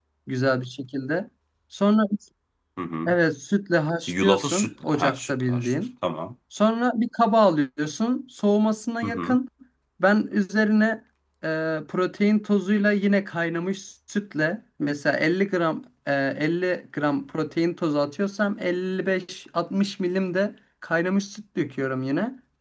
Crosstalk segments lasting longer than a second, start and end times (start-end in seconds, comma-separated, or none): 4.1-5.8